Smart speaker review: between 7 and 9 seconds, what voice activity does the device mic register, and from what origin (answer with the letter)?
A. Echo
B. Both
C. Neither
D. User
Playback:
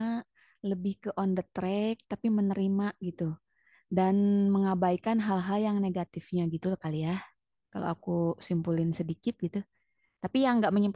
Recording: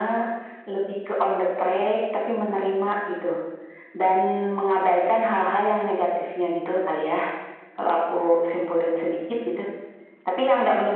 A